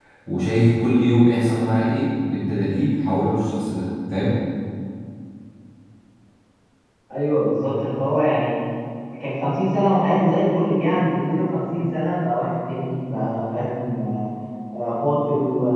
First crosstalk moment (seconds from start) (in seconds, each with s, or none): none